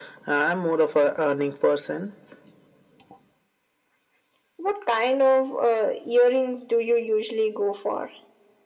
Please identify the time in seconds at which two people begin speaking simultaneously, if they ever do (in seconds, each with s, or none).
none